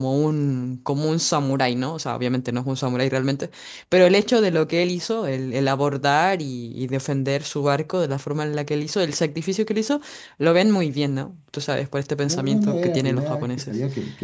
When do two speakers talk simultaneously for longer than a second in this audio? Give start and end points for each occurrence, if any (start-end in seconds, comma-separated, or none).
12.2-13.7